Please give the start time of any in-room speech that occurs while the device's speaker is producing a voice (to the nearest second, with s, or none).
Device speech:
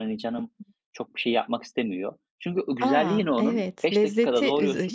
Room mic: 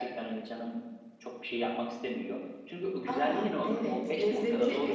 4 s